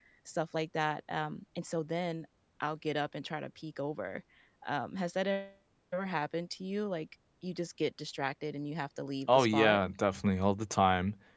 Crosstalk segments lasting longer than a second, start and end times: none

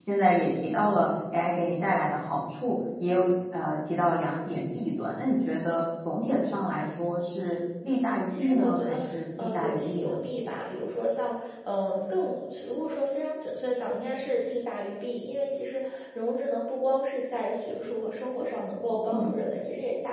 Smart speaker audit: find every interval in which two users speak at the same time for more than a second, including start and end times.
7.9-10.2

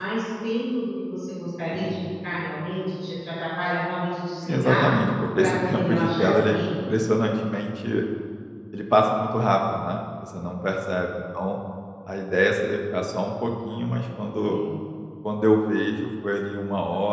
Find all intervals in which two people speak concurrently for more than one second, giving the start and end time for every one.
5.4-6.6

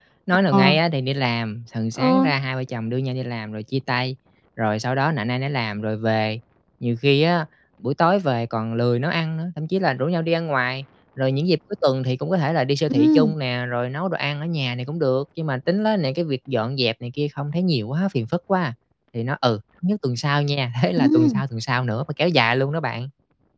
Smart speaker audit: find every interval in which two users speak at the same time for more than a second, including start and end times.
none

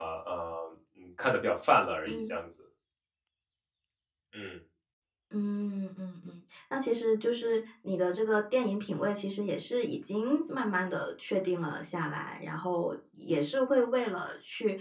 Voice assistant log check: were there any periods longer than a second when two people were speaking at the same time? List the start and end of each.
none

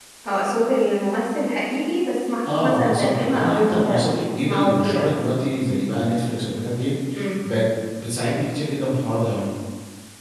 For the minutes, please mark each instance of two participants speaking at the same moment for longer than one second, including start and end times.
2.5-5.1

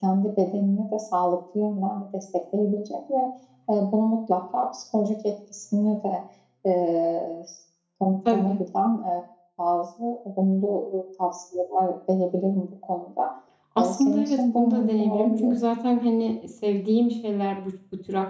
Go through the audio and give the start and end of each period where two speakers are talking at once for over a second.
13.8-15.7

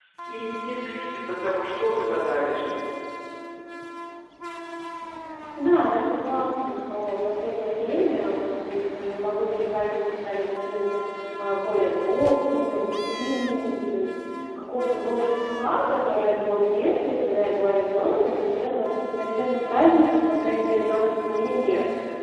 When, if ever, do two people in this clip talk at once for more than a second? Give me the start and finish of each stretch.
none

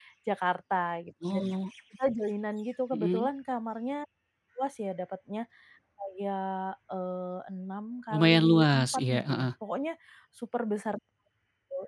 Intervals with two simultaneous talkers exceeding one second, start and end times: 8.1-9.5

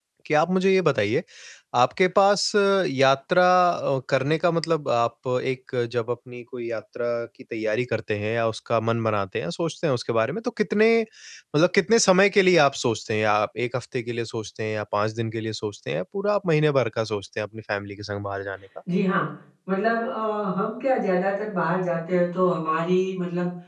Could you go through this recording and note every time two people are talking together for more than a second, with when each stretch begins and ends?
none

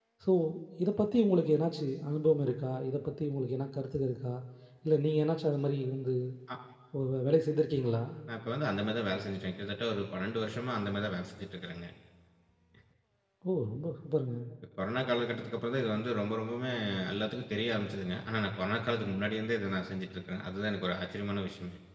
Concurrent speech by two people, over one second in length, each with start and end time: none

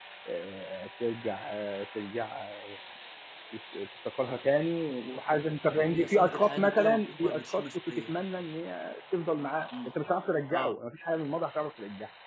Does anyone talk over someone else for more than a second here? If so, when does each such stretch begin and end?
5.8-8.1

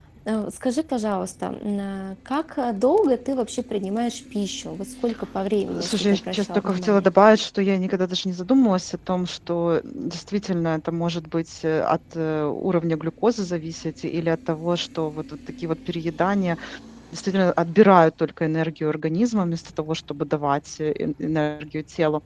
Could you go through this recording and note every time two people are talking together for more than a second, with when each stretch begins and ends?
5.7-7.1

